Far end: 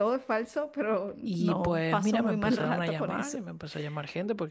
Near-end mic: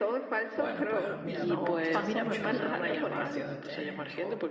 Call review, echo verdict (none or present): present